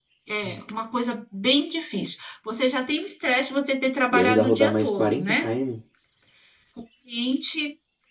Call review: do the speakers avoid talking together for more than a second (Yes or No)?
No